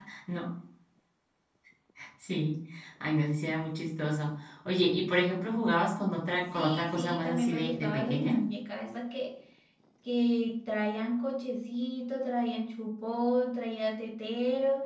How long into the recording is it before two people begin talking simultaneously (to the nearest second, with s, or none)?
7 s